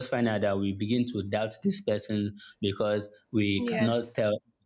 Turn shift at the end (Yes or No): No